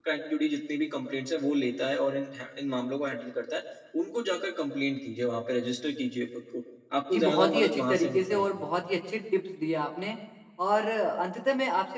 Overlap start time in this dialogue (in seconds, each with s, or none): 7.1 s